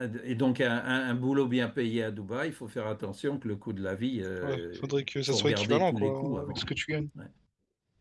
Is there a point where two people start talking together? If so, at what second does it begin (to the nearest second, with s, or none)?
4 s